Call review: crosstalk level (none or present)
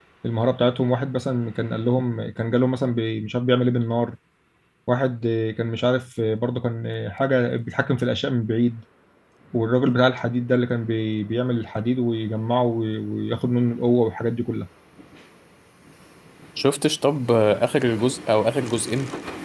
none